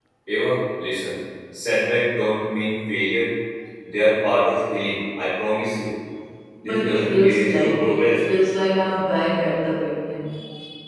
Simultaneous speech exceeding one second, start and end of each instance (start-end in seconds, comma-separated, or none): 6.6-8.2